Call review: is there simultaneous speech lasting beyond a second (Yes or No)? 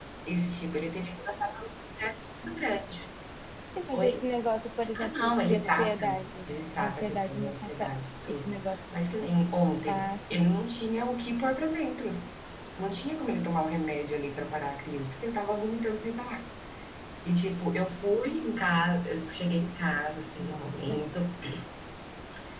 Yes